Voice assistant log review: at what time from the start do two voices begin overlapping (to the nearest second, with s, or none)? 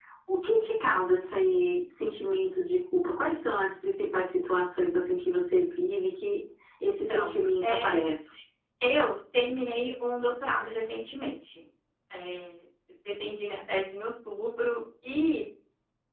7 s